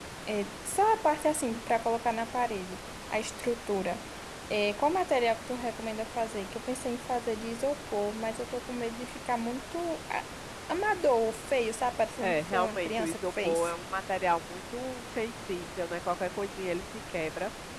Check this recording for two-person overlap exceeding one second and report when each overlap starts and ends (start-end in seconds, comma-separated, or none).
12.2-13.7